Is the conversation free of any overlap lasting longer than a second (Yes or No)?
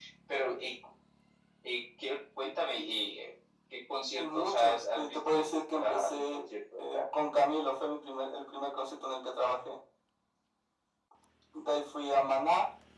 No